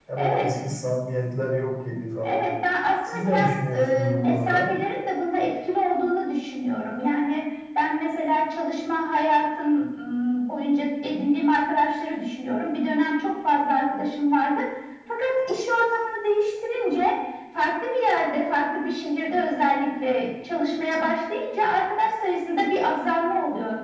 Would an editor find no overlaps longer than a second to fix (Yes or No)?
No